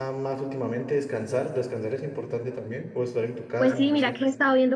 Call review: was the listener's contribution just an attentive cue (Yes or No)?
No